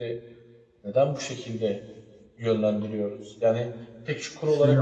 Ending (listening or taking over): listening